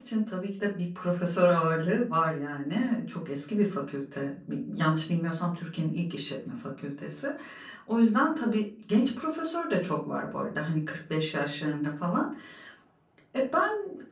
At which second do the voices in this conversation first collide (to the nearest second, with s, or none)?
none